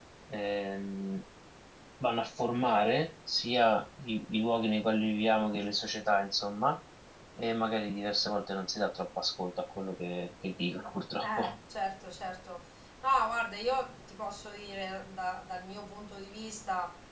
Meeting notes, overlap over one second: none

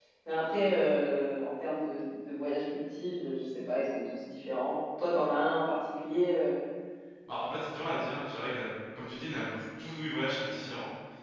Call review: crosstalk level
none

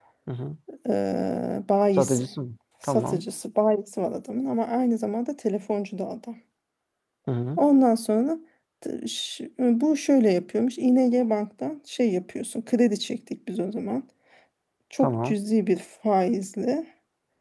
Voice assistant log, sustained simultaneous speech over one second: none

